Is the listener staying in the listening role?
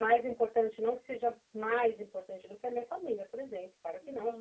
Yes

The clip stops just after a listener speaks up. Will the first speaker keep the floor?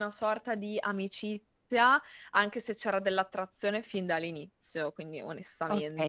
No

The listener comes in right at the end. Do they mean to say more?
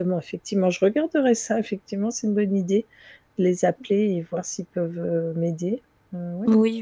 Yes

